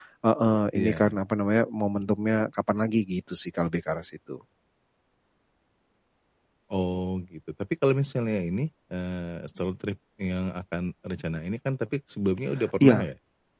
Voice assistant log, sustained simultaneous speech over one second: none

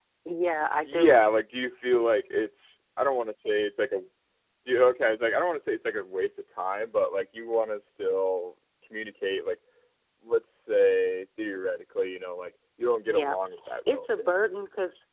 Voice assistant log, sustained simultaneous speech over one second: none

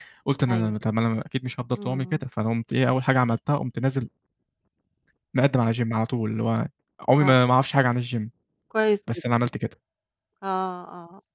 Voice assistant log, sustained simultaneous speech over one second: none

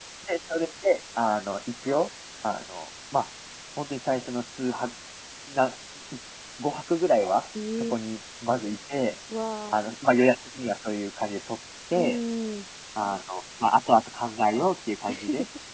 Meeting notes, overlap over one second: none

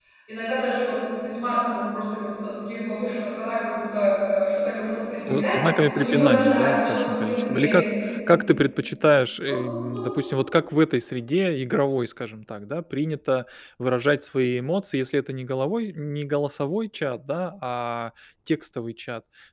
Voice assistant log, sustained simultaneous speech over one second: present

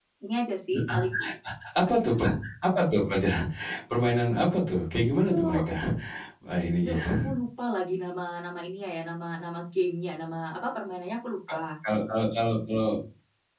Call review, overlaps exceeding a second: none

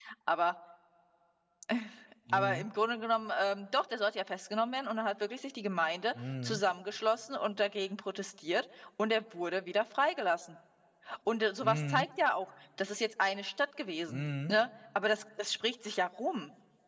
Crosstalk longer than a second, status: none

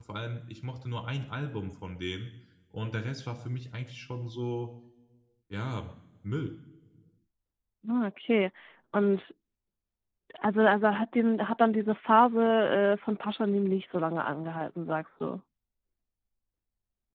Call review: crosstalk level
none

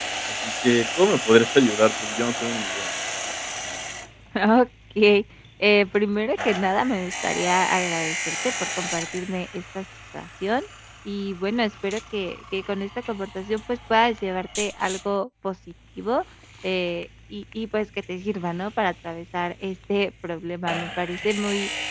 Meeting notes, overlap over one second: none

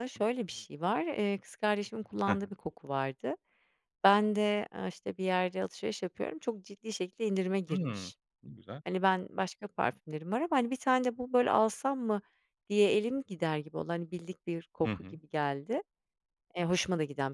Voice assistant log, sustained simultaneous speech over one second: none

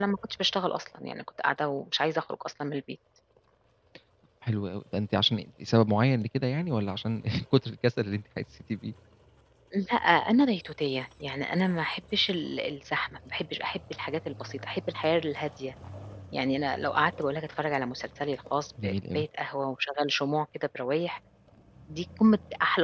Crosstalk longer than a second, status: none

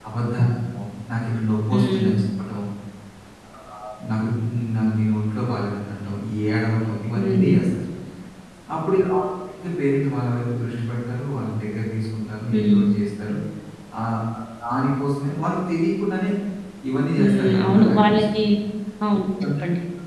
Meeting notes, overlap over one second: present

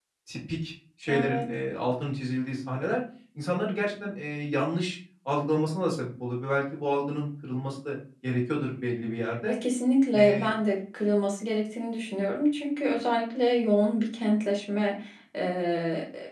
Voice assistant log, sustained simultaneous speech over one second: none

